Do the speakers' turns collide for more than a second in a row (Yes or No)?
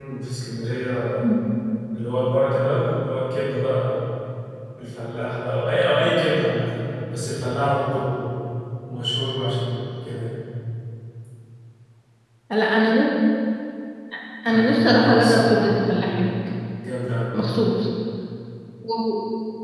Yes